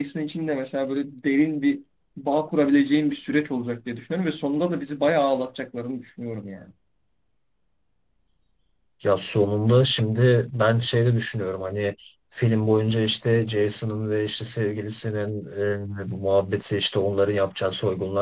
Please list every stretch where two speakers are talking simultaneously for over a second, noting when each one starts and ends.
none

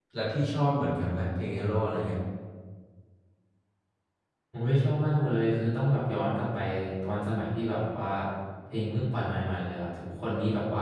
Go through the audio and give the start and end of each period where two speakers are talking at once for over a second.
none

